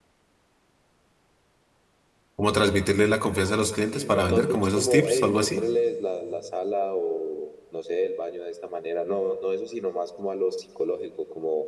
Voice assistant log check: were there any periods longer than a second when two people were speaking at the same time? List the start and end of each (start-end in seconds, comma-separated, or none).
3.9-5.7